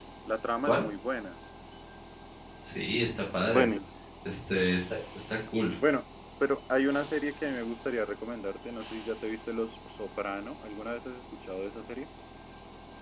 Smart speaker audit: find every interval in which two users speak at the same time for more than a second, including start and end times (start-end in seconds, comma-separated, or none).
none